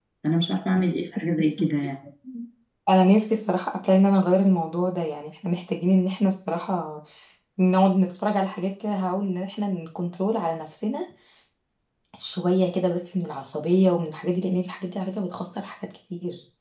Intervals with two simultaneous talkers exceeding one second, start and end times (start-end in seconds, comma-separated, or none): none